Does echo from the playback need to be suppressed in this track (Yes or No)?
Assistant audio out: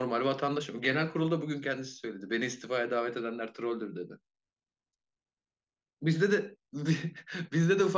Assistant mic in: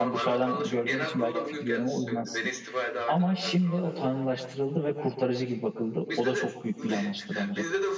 Yes